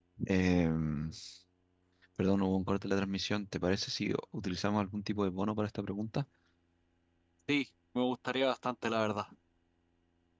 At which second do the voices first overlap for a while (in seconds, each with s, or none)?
none